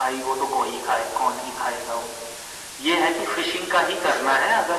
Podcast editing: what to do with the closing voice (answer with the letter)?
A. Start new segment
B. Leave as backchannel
B